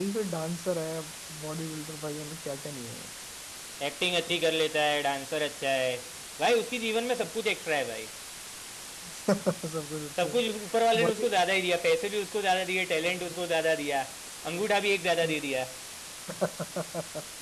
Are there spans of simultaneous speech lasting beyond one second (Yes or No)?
No